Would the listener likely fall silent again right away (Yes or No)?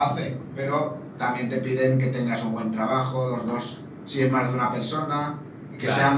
Yes